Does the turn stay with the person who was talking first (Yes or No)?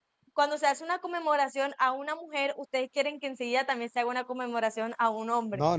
No